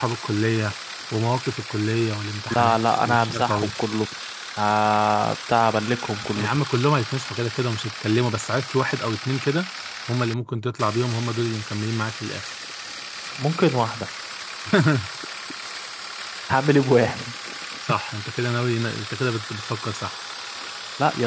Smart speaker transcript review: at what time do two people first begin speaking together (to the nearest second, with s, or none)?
2 s